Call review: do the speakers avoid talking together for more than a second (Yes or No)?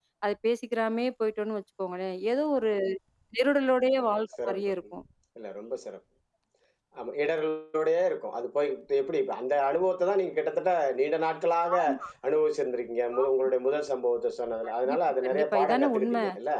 No